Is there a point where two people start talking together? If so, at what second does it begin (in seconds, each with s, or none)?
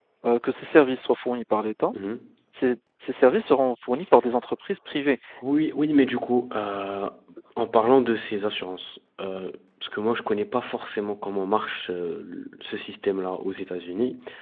none